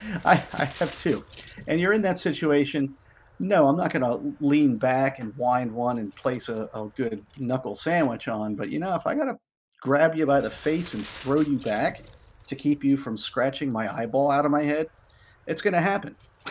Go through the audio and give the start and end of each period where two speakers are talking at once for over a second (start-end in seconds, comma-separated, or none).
none